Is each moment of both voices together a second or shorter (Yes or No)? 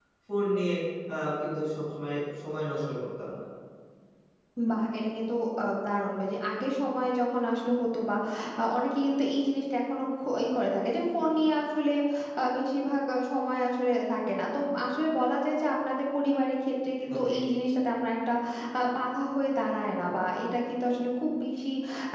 Yes